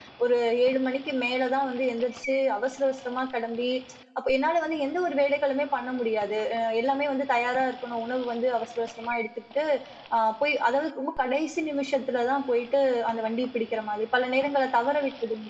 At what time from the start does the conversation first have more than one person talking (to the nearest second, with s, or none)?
none